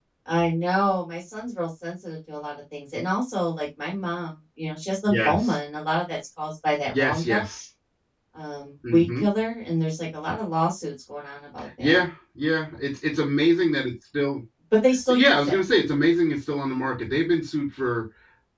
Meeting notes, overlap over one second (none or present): none